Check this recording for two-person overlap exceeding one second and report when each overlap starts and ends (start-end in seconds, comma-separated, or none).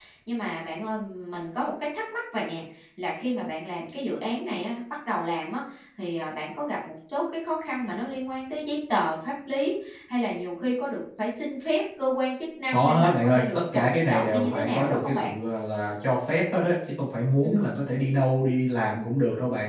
12.7-15.3